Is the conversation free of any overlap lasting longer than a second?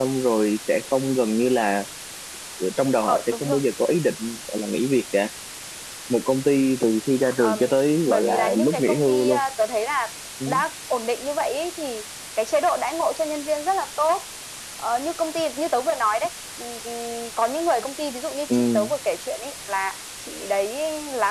No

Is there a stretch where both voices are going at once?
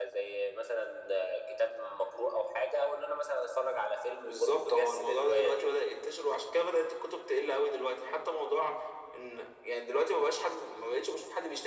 Yes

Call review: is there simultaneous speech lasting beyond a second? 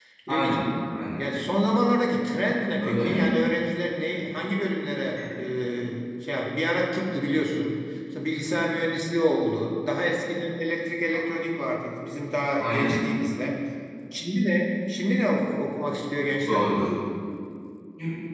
No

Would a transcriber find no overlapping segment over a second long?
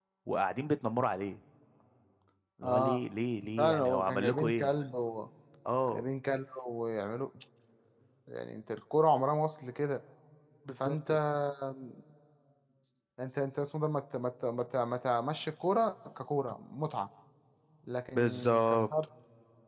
No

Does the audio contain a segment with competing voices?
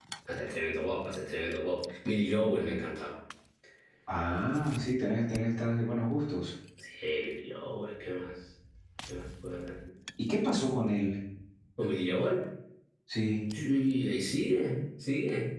No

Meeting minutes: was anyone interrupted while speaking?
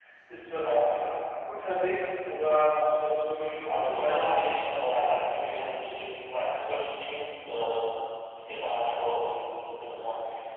Yes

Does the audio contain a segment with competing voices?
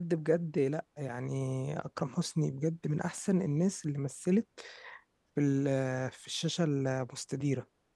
No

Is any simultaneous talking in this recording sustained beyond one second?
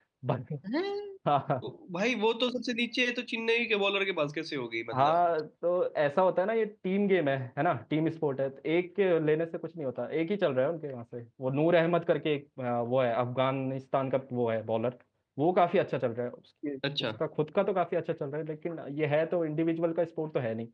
No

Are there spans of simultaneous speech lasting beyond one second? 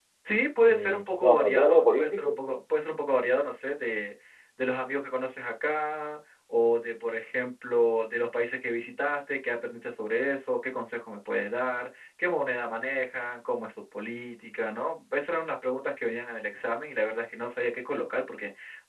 Yes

